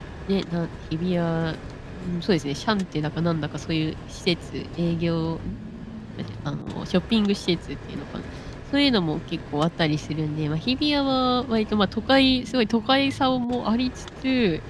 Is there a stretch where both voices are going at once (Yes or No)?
No